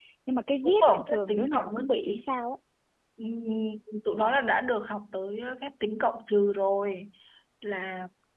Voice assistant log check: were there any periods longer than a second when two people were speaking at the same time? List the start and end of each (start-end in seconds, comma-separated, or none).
0.8-2.2